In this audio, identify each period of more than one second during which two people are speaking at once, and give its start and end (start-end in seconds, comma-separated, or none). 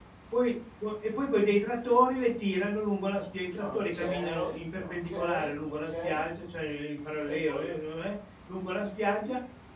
3.6-6.2